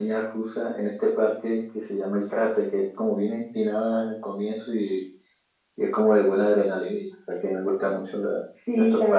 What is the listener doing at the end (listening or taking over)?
taking over